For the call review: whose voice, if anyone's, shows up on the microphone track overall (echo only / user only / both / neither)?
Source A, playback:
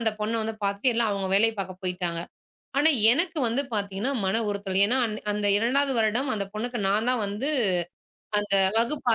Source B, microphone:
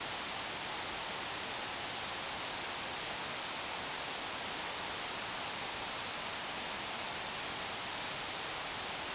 neither